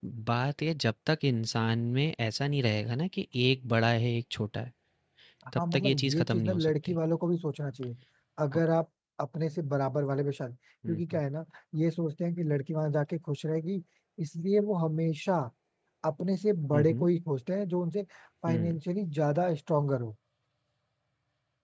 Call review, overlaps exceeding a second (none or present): present